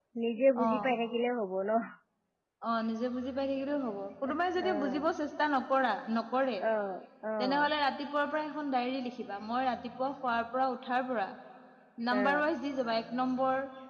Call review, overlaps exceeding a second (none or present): none